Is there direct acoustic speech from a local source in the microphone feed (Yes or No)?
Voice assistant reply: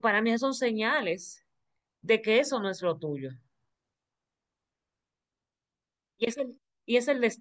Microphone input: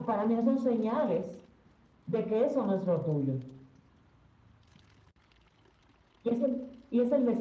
No